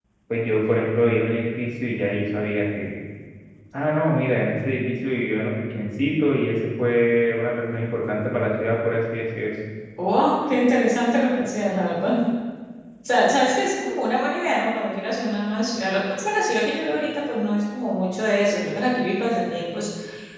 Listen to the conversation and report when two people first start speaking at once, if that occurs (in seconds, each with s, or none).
none